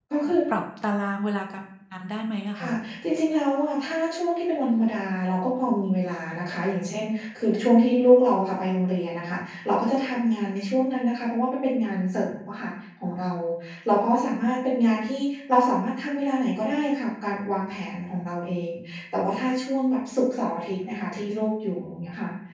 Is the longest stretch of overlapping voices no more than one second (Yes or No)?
Yes